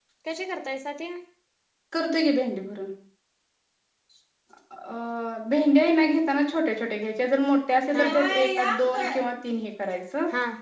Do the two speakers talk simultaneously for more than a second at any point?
Yes, from 7.9 s

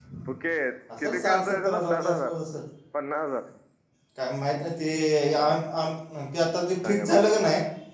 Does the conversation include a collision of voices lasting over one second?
Yes, from 1.0 s

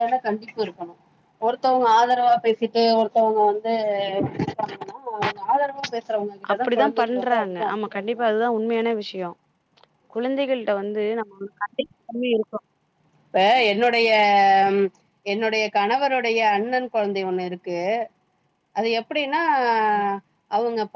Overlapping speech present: Yes, from 6.4 s

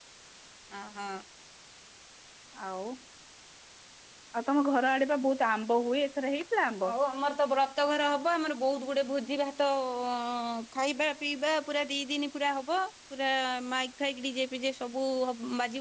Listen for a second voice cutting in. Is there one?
No

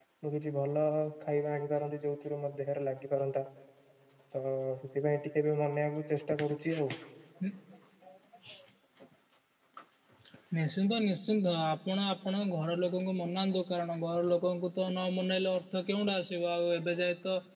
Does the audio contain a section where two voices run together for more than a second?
No

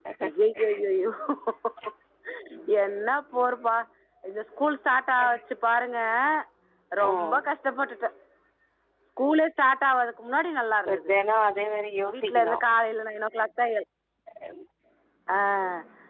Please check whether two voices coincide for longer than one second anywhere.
No

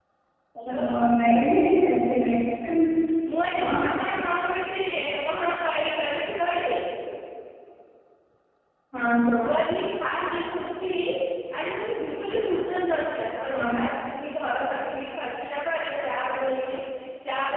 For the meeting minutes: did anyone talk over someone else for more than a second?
No

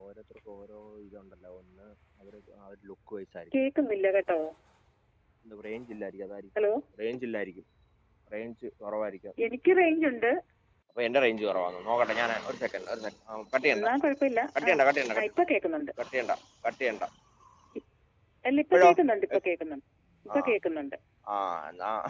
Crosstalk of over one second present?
No

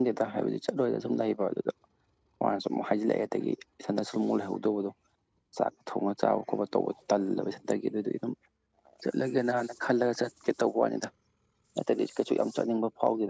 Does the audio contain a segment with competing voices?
No

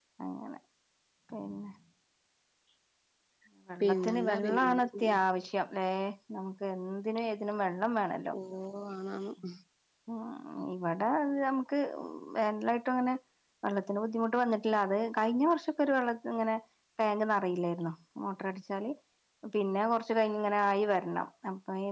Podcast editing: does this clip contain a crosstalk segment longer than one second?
Yes, from 3.8 s

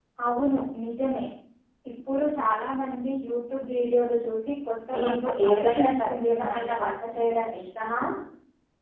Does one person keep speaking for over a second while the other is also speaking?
Yes, from 4.8 s

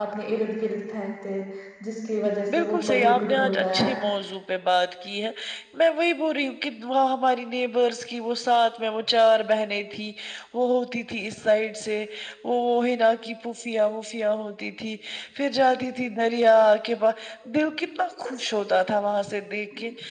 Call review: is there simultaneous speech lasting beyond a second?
Yes, from 2.5 s

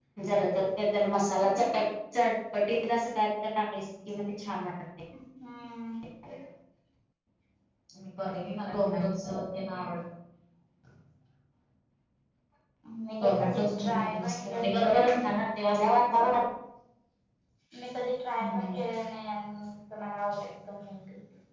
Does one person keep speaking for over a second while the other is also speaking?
Yes, from 13.2 s

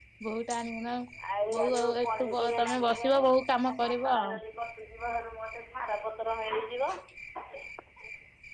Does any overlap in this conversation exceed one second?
Yes, from 1.8 s

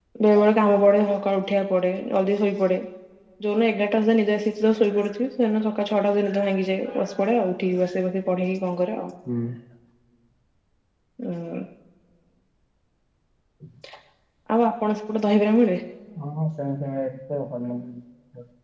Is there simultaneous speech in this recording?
No

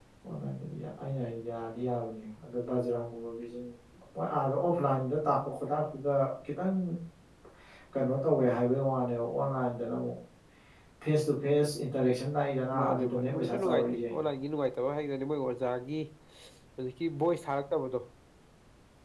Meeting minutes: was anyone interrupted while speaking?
Yes, from 12.7 s

